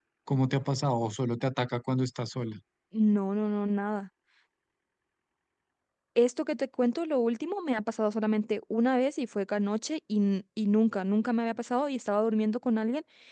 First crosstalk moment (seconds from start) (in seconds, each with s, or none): none